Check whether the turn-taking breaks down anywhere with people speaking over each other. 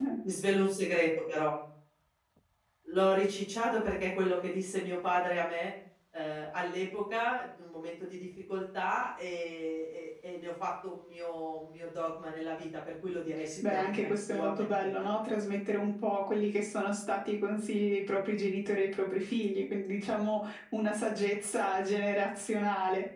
Yes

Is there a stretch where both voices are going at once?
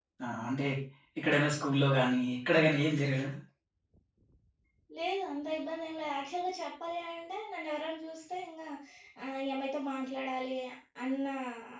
No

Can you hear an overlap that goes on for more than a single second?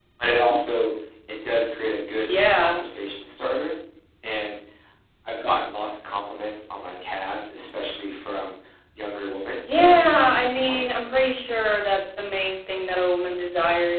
Yes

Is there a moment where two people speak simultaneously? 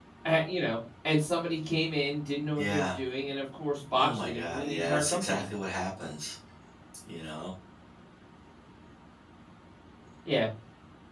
Yes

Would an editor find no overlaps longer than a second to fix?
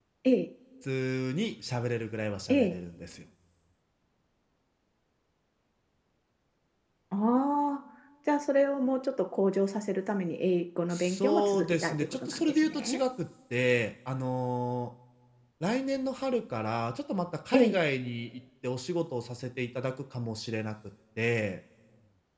No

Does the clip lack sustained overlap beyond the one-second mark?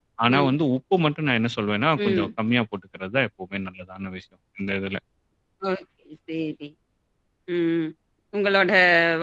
Yes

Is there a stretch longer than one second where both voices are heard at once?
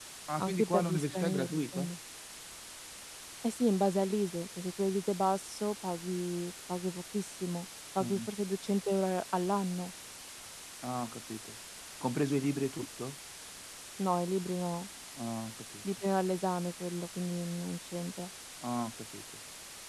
Yes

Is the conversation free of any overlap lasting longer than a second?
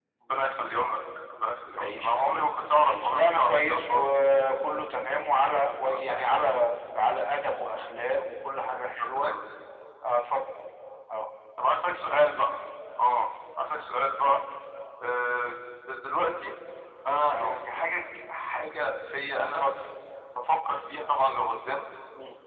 No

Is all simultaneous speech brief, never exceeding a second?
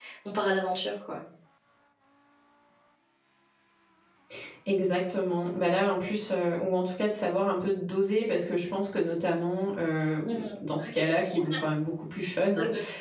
Yes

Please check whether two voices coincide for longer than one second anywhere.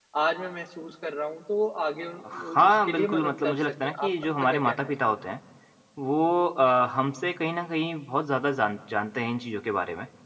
Yes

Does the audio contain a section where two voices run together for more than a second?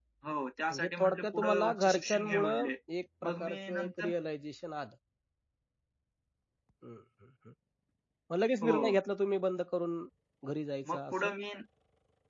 Yes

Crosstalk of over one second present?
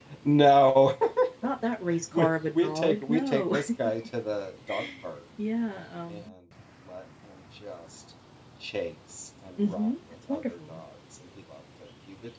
Yes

